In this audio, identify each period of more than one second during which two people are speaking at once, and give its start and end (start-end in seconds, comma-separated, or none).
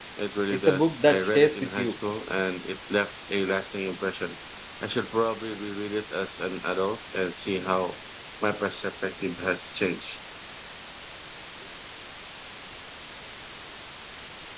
0.5-1.9